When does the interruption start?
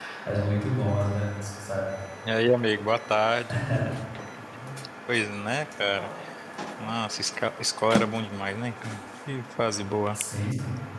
none

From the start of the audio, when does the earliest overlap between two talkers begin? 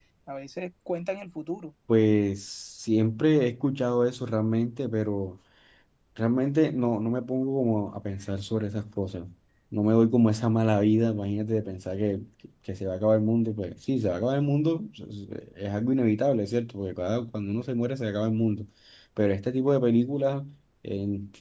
none

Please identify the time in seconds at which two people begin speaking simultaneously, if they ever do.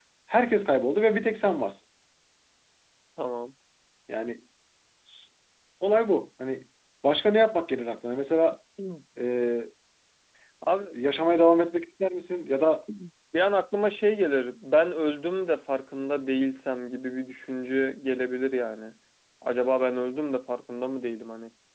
none

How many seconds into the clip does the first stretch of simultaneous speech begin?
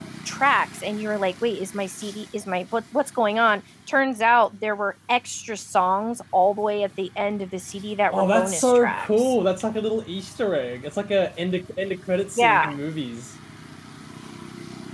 8.1 s

